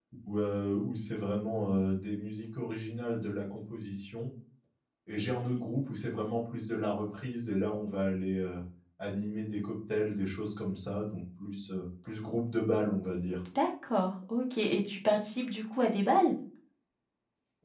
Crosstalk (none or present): none